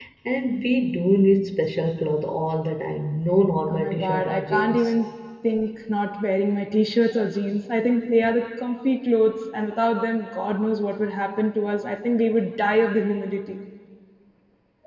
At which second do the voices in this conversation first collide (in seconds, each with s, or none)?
3.7 s